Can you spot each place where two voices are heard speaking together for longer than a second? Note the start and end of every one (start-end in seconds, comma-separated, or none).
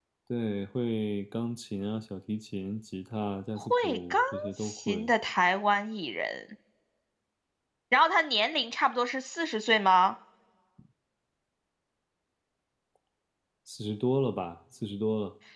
3.6-5.1